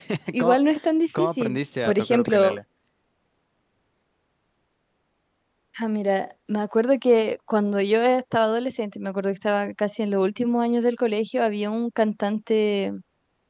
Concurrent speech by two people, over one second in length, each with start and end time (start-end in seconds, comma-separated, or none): 1.2-2.6